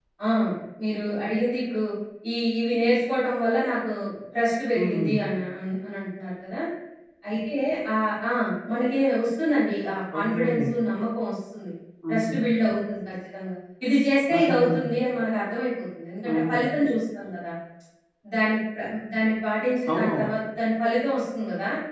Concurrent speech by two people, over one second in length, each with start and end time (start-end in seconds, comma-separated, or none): none